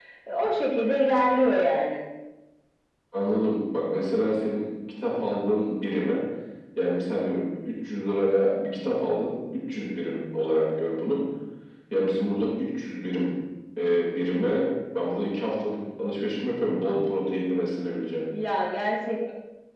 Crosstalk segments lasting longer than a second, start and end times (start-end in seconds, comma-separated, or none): none